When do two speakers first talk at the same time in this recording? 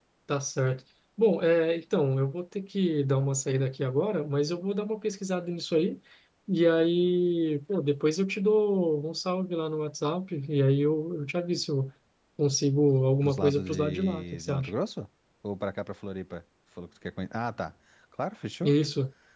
13 s

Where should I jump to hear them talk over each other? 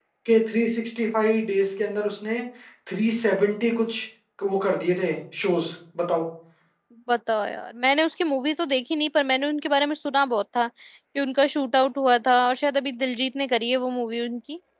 none

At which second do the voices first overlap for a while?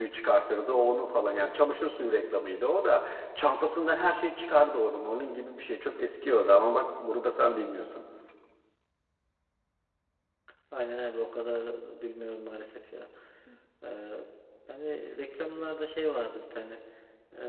none

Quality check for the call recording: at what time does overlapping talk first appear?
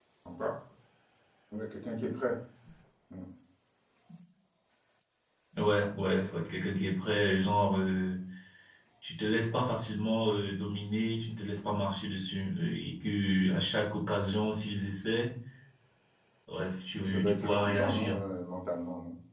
17 s

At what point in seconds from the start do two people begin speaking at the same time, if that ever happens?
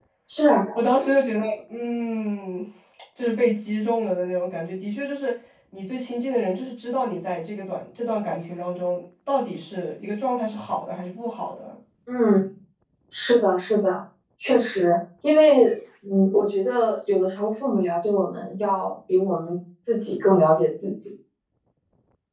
none

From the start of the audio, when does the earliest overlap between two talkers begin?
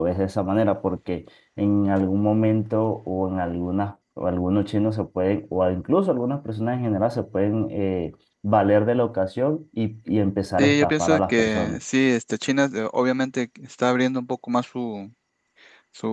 11 s

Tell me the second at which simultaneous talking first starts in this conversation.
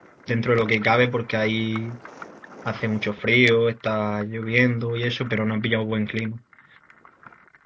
none

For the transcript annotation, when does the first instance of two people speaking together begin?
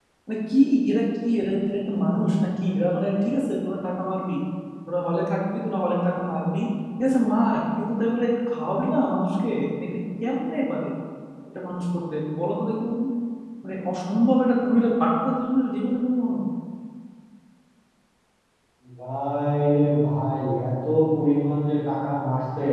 none

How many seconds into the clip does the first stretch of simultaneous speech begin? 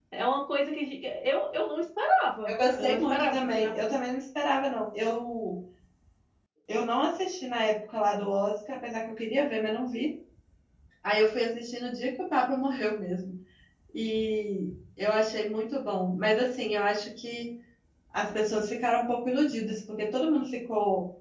2 s

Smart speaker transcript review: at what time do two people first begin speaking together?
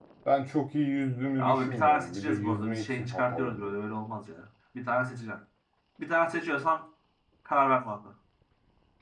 1 s

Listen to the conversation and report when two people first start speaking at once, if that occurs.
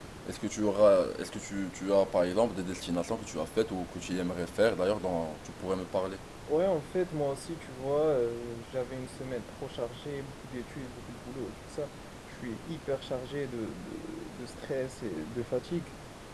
none

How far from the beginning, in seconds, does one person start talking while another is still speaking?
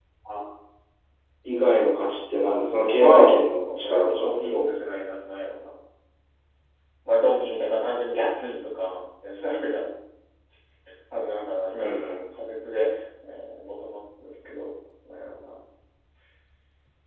3 s

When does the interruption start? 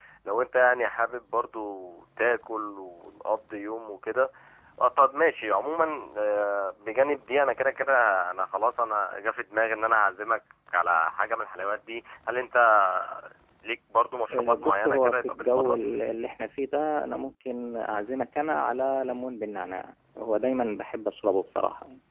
14 s

